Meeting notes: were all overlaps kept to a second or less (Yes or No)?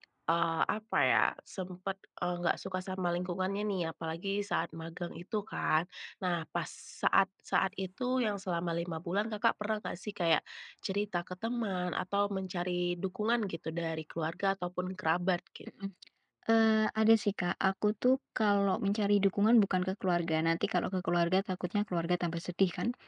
Yes